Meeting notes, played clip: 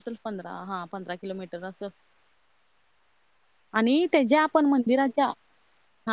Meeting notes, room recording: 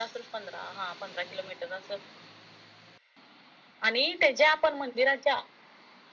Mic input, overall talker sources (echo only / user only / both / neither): echo only